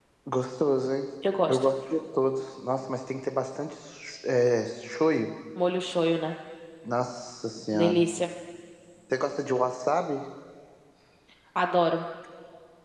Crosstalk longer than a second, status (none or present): none